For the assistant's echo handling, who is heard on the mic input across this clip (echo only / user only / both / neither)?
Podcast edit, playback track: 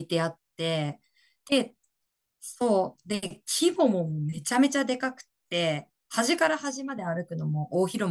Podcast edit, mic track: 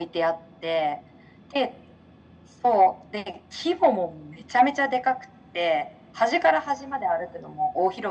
echo only